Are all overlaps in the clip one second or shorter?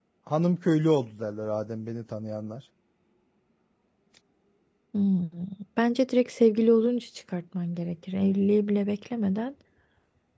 Yes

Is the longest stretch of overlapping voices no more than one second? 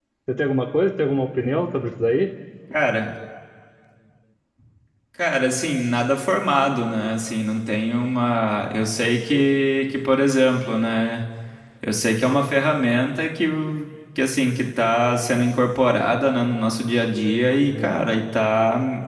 Yes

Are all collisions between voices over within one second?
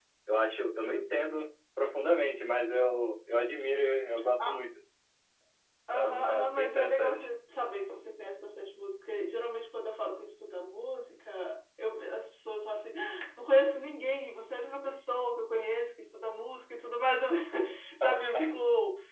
No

